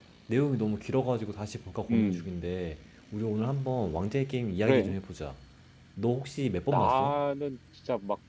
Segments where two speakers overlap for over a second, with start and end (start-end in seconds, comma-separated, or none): none